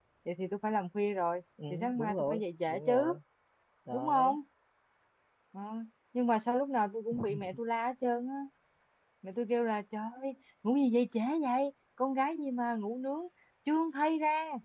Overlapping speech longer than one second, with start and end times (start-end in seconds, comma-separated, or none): 1.7-3.2